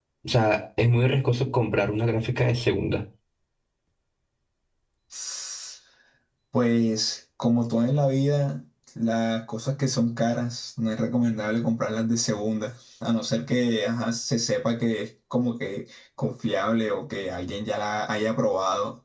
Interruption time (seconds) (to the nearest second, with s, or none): none